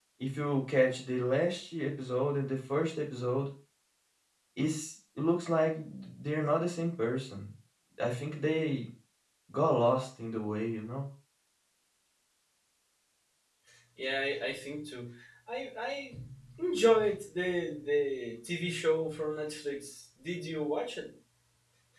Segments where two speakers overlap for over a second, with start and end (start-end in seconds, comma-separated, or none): none